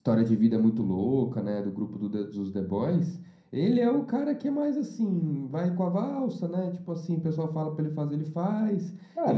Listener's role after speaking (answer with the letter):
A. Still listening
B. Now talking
B